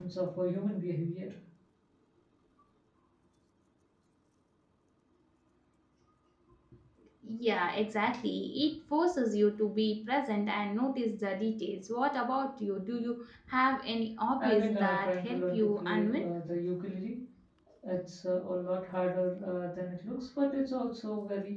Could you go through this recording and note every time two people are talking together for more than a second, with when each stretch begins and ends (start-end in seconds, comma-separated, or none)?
14.4-16.2